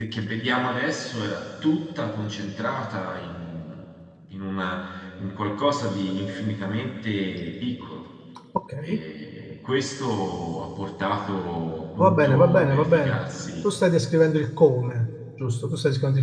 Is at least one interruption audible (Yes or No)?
Yes